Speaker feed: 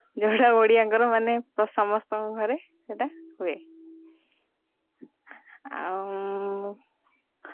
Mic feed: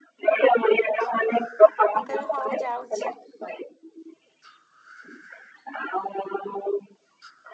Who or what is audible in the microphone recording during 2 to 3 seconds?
both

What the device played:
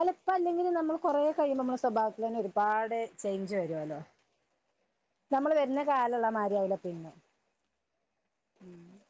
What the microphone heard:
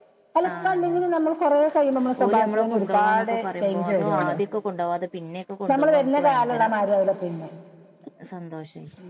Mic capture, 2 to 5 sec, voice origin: both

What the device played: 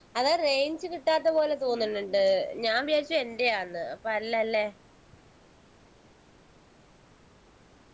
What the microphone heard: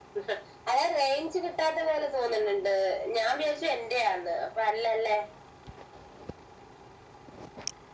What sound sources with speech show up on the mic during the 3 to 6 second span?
echo only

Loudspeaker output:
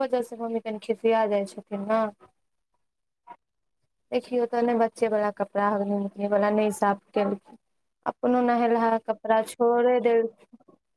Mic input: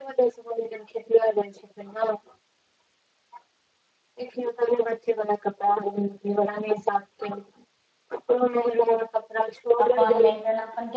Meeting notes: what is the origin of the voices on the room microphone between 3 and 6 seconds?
echo only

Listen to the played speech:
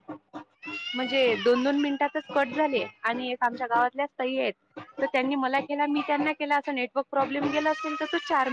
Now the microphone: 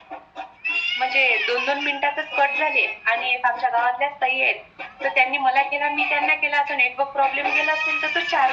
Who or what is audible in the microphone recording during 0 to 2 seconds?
echo only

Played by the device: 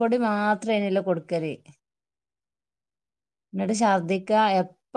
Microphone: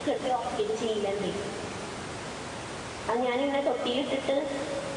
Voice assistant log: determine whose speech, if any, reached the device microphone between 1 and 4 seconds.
user only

